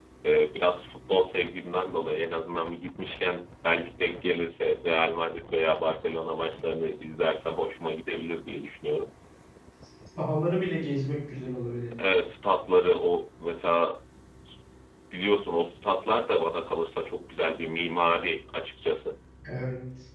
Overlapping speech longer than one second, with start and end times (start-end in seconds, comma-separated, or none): none